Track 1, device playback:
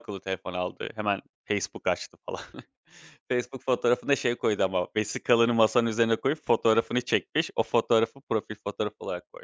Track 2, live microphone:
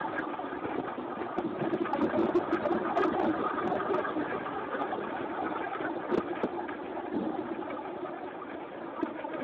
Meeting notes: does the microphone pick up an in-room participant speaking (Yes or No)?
No